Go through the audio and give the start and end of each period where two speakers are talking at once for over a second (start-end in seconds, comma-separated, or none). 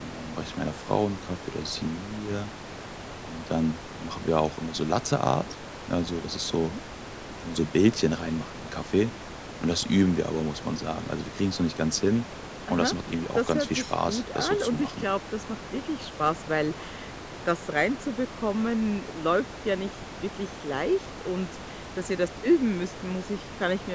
13.3-15.1